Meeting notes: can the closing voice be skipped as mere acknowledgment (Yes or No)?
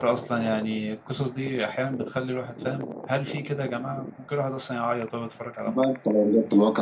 No